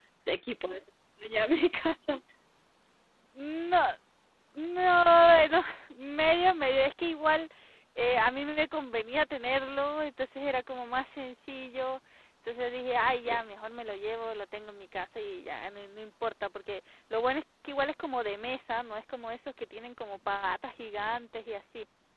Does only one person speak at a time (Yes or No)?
Yes